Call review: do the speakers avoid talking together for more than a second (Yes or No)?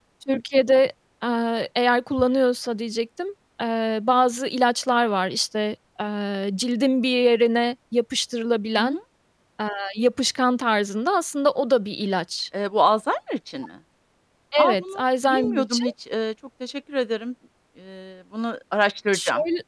No